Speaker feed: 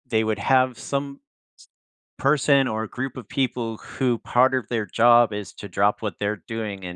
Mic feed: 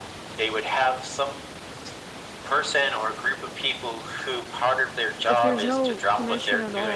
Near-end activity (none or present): present